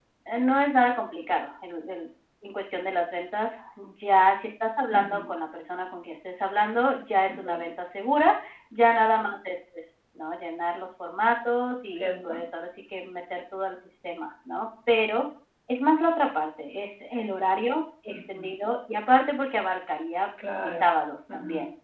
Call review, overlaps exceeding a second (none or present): none